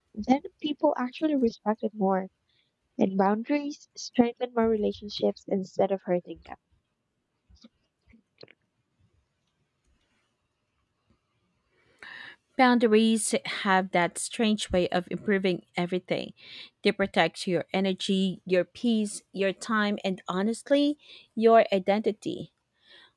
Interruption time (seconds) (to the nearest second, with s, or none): none